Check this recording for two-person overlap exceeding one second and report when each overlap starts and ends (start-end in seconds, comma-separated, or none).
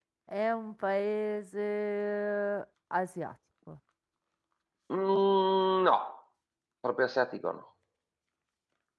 none